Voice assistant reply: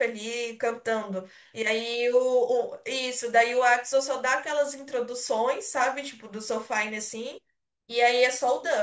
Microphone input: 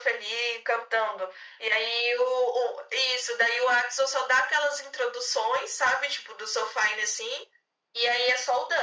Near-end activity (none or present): none